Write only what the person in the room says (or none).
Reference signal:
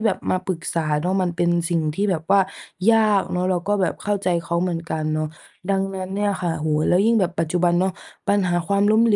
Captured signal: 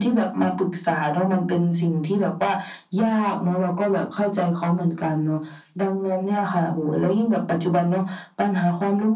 none